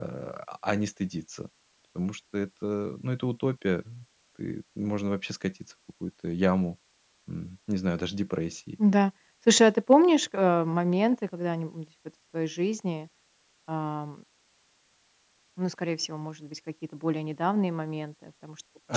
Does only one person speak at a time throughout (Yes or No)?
Yes